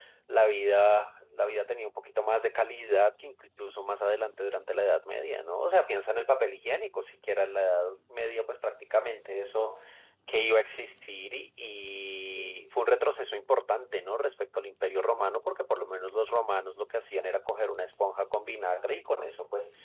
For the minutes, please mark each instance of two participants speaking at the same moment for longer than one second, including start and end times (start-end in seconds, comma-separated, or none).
none